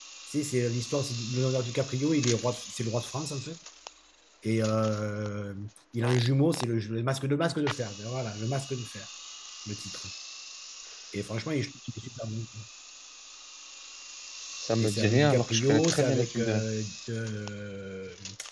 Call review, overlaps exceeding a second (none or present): present